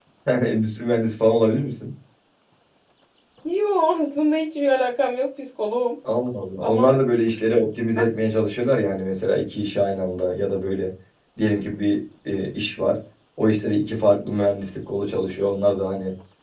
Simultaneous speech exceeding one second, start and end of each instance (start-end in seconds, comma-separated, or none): none